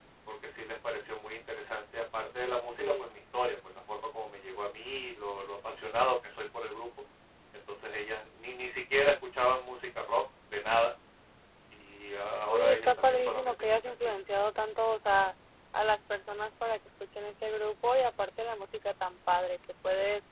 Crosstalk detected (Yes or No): Yes